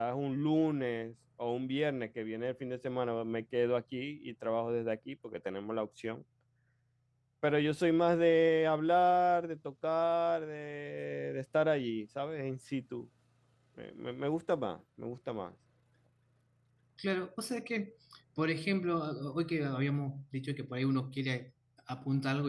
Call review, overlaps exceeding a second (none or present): none